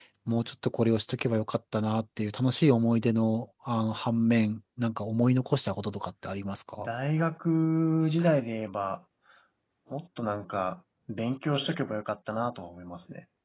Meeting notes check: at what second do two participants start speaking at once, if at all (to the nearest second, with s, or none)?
none